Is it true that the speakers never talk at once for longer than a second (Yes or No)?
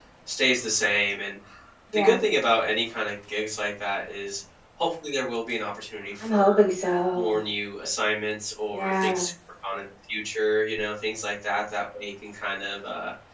Yes